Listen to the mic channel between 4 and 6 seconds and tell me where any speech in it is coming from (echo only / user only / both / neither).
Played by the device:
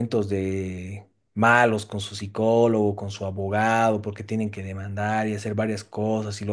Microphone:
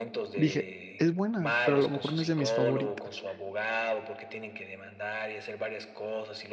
echo only